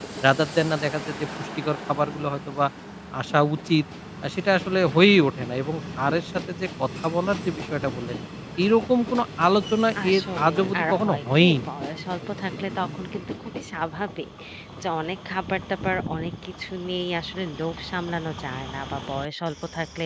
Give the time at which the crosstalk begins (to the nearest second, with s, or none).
10 s